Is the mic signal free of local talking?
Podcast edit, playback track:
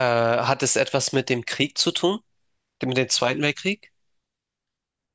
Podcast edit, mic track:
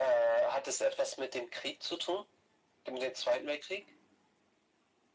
Yes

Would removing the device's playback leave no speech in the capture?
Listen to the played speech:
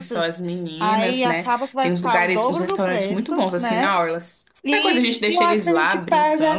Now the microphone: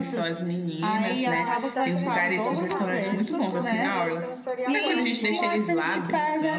No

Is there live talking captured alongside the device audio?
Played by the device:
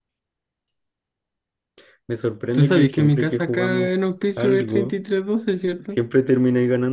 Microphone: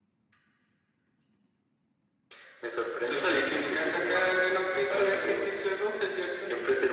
No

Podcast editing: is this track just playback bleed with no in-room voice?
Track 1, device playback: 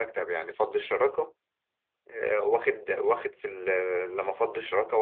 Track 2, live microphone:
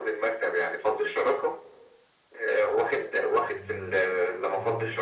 No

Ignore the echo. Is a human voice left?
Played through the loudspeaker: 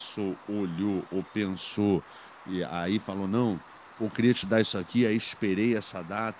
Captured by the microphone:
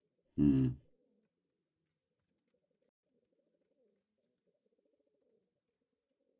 Yes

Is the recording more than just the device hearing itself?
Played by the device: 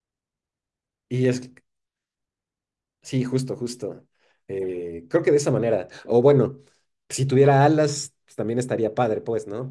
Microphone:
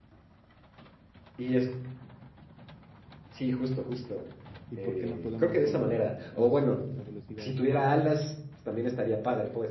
Yes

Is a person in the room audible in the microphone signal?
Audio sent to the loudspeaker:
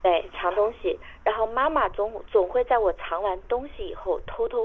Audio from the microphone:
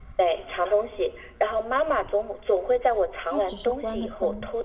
Yes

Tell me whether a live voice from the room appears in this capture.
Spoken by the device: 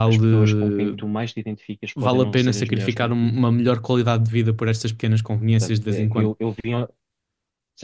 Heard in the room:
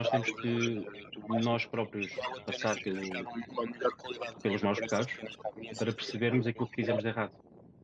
Yes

